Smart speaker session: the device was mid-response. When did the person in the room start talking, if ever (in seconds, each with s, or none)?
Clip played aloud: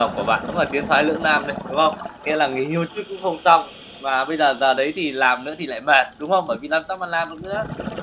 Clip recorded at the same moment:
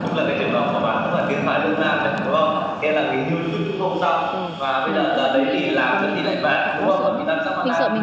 4.3 s